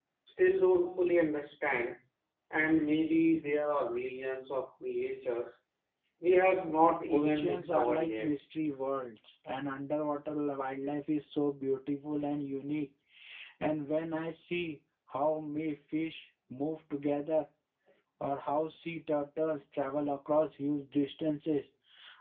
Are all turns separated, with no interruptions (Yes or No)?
No